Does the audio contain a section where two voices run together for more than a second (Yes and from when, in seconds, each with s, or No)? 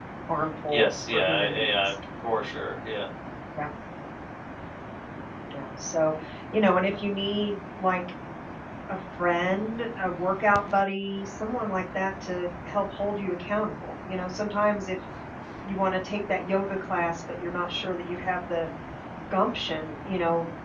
Yes, from 0.7 s